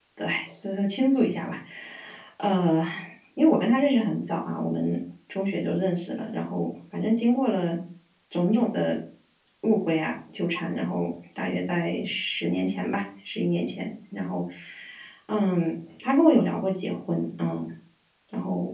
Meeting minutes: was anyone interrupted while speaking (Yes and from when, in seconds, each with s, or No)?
No